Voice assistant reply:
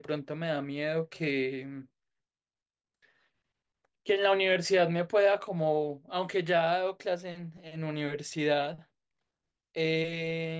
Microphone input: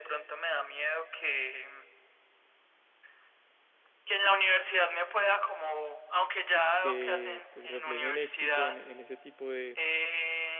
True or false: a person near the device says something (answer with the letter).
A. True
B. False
A